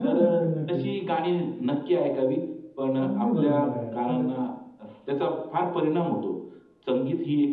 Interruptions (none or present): present